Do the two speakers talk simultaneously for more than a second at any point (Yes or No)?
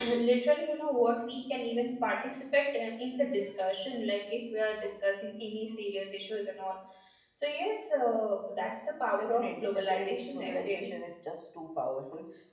Yes